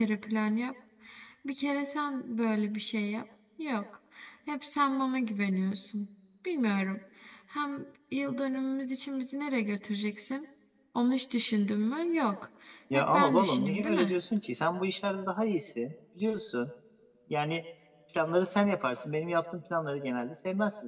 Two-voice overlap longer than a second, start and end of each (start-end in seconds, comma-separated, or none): 12.9-14.2